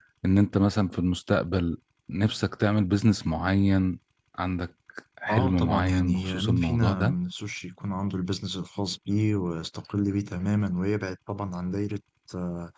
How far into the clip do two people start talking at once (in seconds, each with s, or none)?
5.3 s